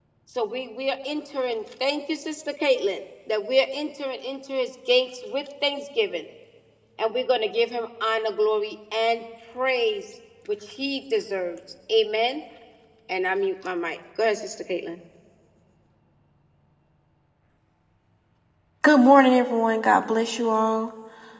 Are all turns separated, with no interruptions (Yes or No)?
Yes